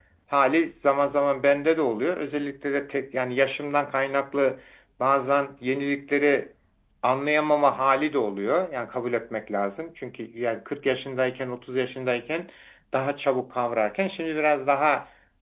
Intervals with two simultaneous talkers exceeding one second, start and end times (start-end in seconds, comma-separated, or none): none